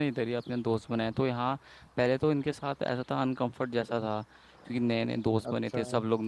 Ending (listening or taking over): listening